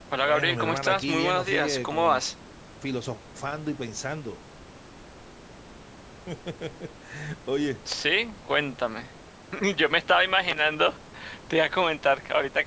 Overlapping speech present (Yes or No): Yes